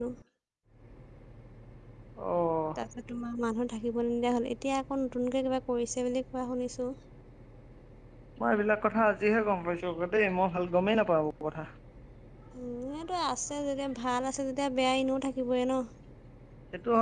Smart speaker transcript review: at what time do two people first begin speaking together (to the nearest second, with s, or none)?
none